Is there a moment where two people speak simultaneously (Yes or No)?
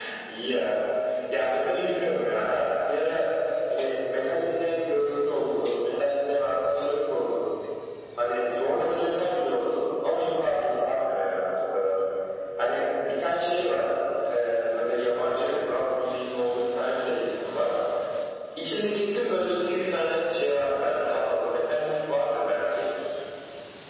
No